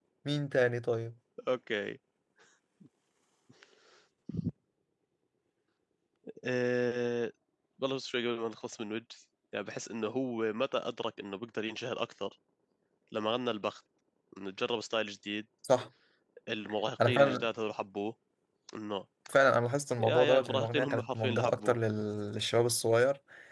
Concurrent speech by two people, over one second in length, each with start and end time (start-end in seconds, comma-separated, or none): 20.0-21.8